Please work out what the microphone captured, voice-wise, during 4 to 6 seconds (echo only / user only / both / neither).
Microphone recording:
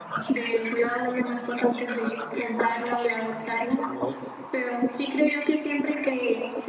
echo only